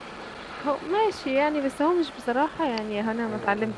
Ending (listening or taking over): taking over